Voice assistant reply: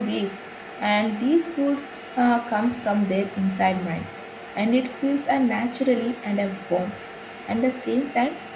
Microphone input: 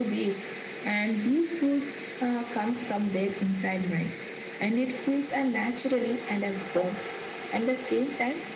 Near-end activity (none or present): none